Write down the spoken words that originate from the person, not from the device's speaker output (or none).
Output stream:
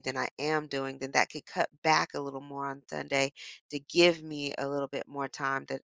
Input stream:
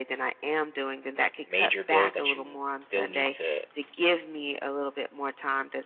major bills that you still need to,